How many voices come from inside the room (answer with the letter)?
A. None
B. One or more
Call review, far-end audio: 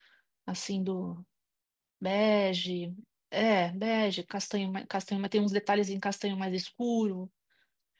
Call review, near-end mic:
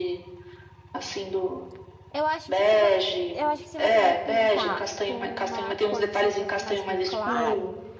B